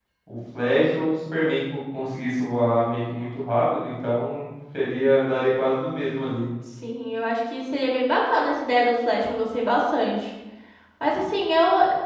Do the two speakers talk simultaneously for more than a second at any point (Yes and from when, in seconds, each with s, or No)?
No